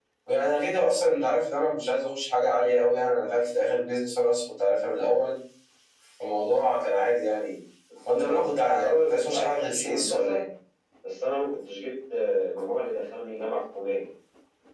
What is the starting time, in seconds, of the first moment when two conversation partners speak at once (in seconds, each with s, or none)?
8.1 s